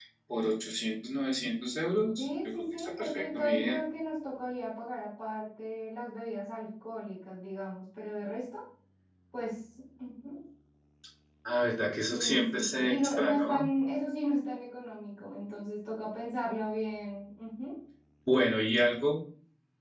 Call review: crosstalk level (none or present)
present